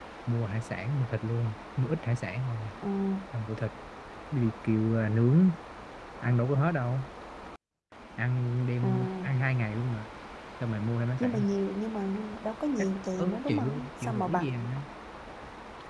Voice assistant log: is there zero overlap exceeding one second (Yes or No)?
No